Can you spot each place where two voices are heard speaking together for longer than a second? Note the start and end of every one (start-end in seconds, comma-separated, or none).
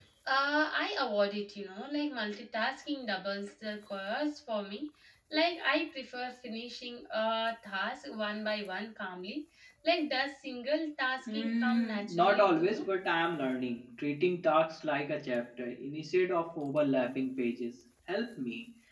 11.3-12.9